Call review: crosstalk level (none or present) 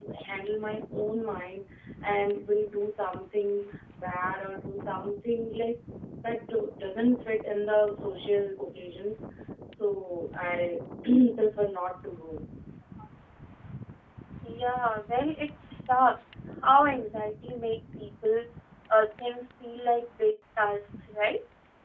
none